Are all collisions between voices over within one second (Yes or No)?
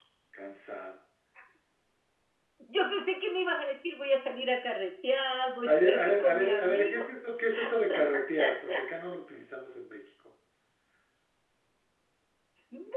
No